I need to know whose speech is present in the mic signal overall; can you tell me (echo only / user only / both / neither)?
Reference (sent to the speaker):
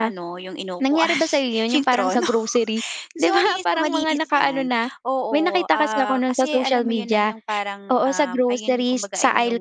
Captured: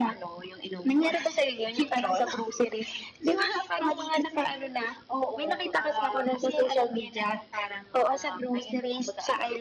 echo only